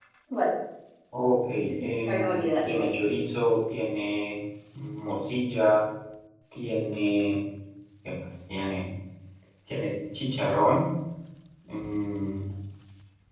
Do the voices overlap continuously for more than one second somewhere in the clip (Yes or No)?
Yes